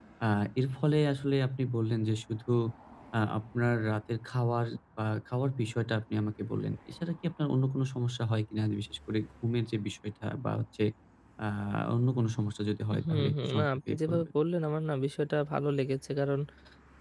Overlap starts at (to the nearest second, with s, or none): 13 s